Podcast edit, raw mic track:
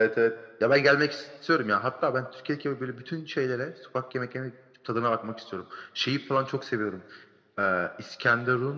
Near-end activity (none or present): none